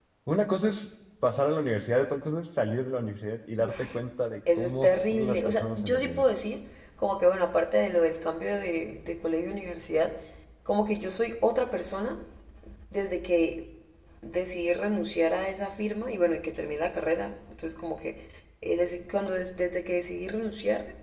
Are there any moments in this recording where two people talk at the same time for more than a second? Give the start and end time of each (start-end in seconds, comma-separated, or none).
4.6-6.2